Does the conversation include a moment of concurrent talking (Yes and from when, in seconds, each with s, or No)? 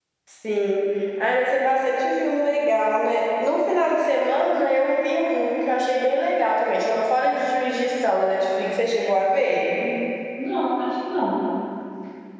No